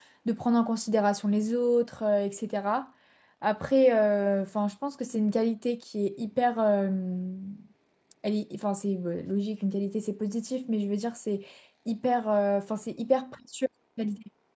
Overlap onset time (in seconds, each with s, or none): none